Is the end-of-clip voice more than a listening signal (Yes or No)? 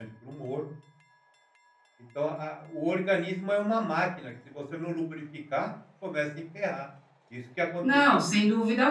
Yes